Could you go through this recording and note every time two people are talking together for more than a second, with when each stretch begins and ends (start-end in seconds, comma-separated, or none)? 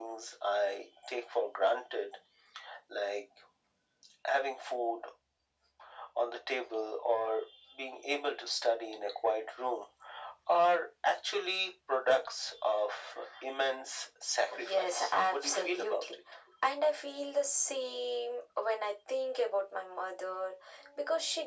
14.6-15.9